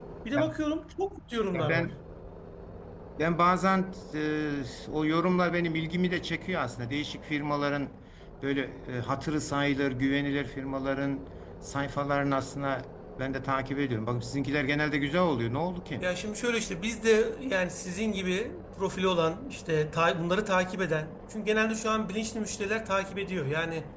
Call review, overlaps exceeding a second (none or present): none